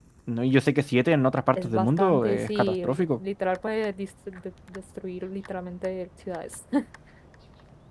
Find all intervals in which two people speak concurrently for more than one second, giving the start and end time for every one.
1.6-3.2

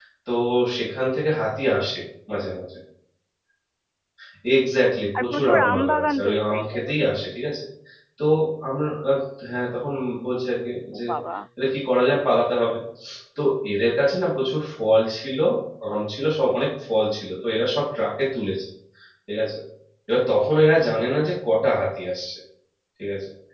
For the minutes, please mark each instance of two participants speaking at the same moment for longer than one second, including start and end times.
5.2-7.1

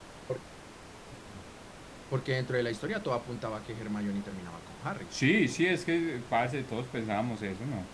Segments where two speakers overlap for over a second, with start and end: none

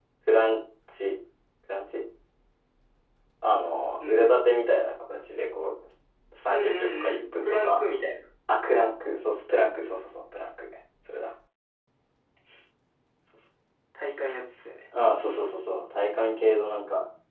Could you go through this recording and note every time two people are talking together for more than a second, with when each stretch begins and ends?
6.5-7.8

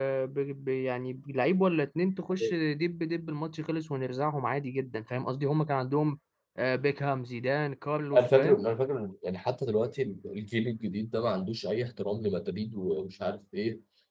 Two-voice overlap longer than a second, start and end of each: none

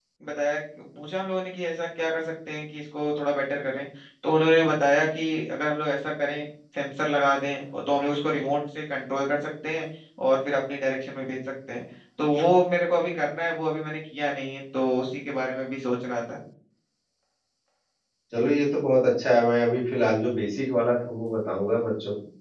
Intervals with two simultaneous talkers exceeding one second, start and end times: none

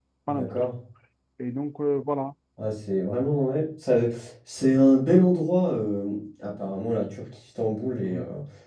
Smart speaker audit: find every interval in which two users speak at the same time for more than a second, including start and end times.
none

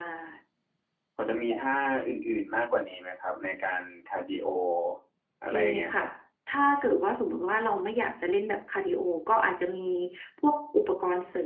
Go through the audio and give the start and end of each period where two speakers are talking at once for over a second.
none

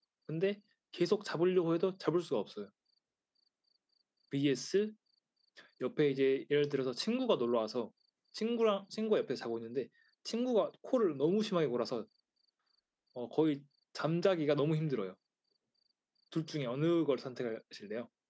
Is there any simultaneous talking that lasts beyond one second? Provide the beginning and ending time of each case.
none

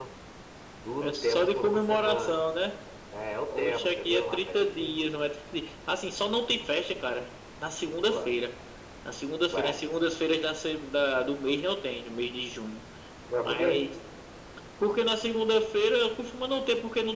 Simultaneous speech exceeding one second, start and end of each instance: 1.0-2.4, 3.6-5.0

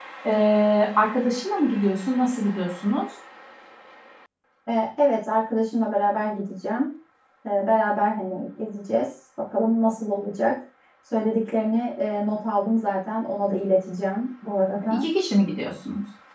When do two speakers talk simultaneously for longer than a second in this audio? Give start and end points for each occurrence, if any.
none

